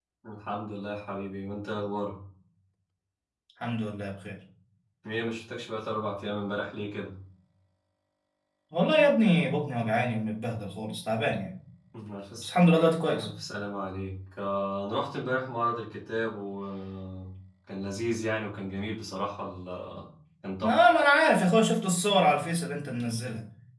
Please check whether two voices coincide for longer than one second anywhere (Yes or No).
No